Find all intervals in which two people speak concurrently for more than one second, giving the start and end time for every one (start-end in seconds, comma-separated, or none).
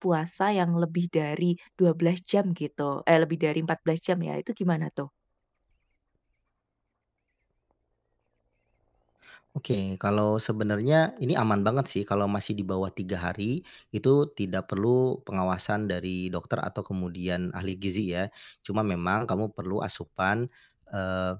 none